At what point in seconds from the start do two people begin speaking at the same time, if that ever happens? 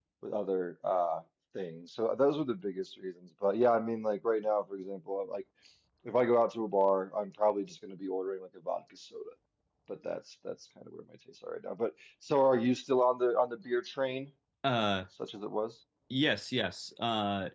none

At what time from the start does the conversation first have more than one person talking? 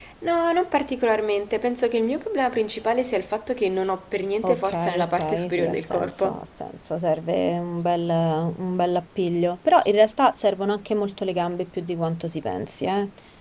4 s

